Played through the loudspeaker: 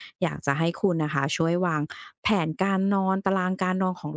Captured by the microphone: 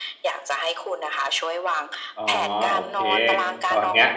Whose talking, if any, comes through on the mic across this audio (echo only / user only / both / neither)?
both